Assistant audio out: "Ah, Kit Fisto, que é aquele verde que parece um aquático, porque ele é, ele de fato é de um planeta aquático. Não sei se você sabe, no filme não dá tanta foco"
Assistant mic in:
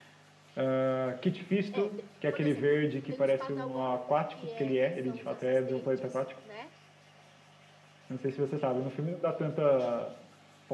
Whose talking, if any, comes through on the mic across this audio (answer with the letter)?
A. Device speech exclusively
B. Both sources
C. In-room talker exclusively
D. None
B